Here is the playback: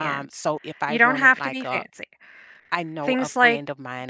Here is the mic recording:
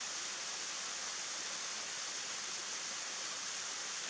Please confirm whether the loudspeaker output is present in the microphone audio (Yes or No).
No